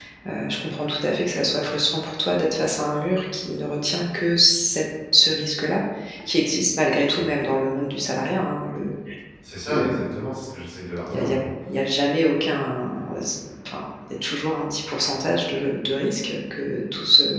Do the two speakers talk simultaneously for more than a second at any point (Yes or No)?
No